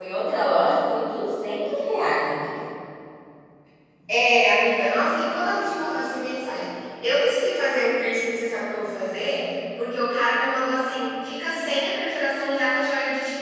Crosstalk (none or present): none